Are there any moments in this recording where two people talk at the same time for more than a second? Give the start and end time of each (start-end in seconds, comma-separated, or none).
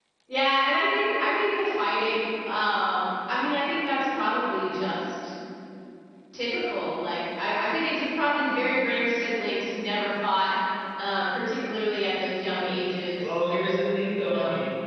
none